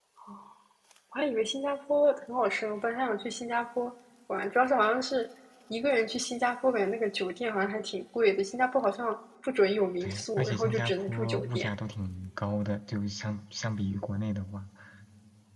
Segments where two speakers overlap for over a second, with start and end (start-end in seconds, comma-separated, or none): 10.0-11.8